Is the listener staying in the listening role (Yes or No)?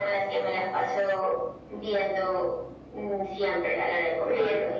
Yes